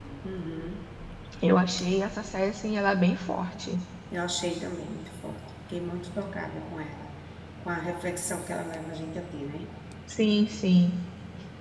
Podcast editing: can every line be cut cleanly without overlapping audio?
Yes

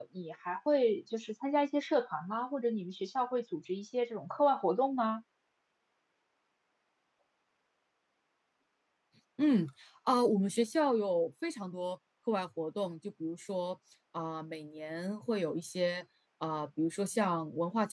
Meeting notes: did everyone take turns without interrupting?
Yes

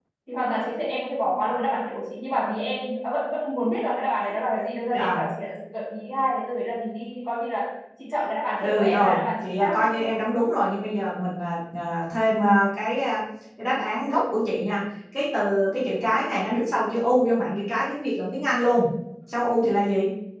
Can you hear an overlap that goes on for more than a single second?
Yes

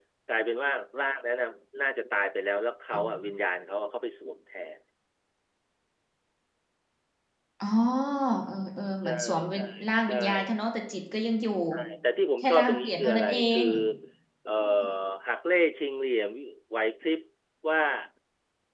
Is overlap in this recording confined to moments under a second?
No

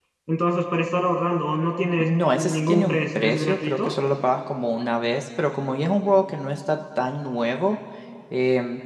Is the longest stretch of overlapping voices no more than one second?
No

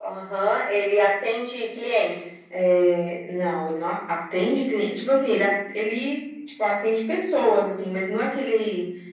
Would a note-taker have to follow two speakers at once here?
No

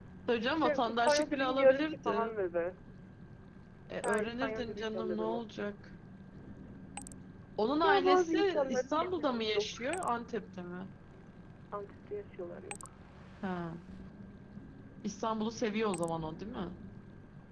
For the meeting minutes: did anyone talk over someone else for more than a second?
Yes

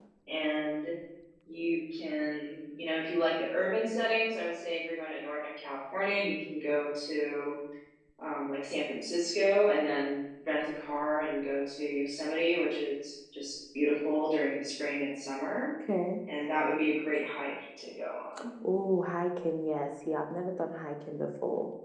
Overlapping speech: No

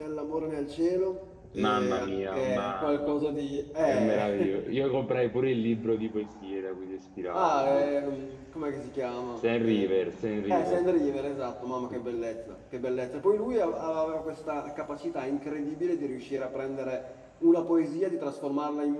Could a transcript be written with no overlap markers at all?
No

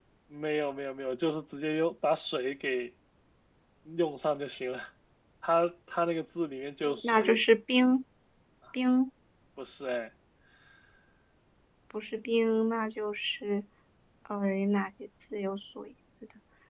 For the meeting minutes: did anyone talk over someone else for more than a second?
No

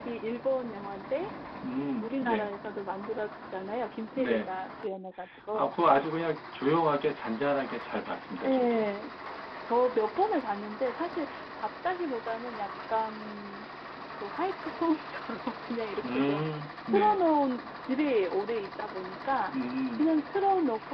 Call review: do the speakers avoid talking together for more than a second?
Yes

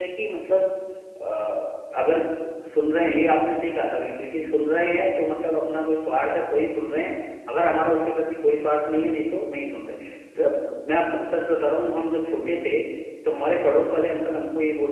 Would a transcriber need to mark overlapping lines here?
No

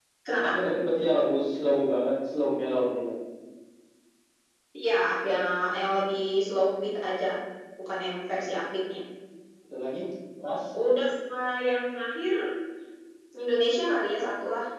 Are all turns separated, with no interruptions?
Yes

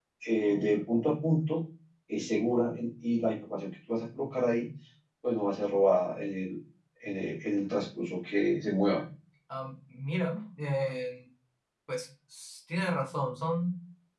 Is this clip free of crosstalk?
Yes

